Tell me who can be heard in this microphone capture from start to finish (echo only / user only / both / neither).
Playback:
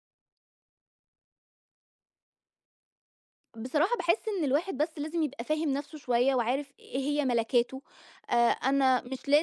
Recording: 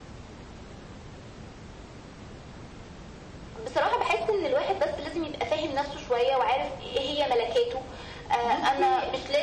both